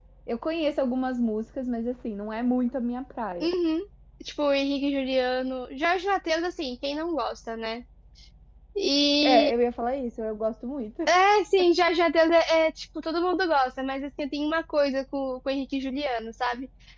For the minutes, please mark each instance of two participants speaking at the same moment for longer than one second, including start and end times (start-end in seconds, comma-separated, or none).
none